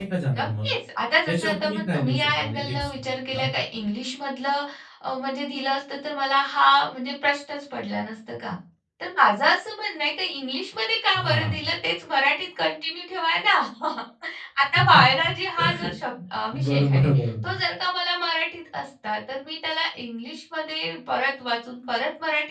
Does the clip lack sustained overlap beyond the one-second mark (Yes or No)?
No